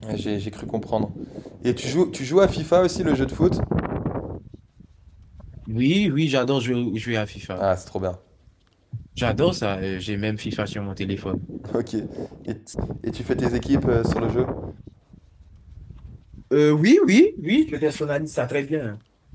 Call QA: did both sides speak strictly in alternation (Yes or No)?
Yes